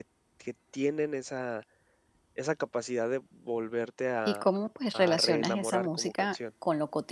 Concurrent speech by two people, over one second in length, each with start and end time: 4.9-6.4

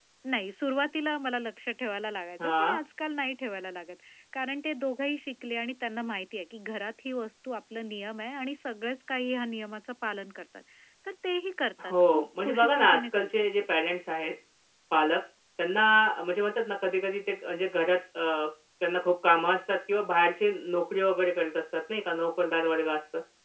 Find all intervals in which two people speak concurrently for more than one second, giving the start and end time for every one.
11.8-13.4

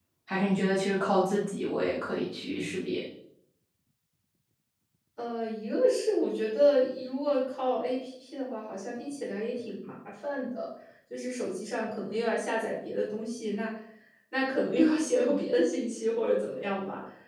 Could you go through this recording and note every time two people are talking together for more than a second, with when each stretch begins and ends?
none

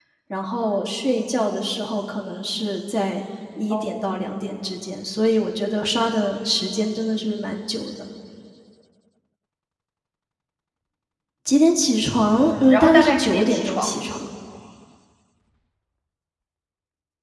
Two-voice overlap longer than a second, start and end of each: 12.4-14.1

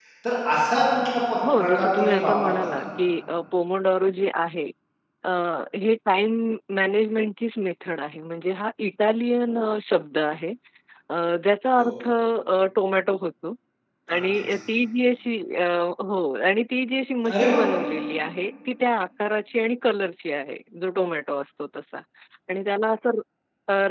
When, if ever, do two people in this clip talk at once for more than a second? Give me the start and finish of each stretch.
1.4-2.8

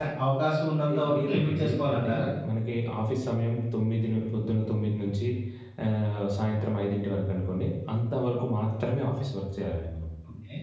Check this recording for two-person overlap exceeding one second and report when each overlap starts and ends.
0.9-2.1

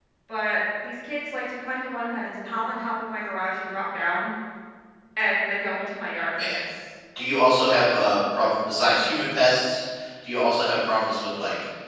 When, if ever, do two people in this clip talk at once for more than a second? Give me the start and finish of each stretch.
none

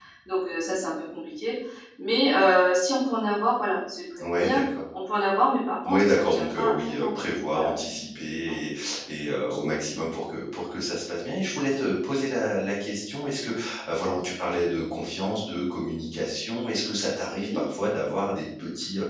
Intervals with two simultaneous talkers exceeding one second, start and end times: 5.9-7.1

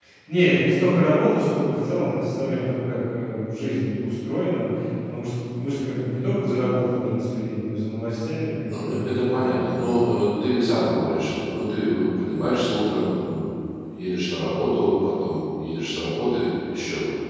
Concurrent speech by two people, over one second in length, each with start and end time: none

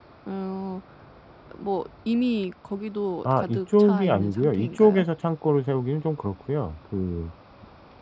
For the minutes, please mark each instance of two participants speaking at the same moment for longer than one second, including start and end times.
3.3-5.0

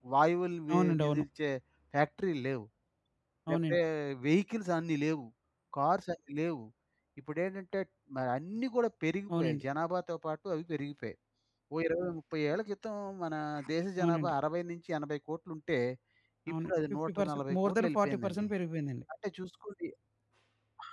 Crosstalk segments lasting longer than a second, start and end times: 16.6-18.5

